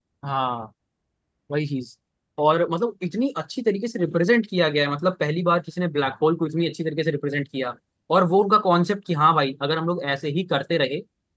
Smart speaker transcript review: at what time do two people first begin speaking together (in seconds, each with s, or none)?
none